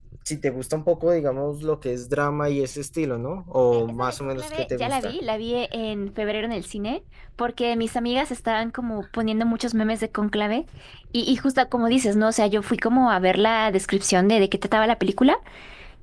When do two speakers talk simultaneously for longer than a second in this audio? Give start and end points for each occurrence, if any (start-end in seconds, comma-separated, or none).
3.7-5.1